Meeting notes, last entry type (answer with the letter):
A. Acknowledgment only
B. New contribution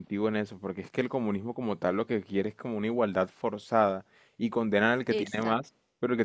A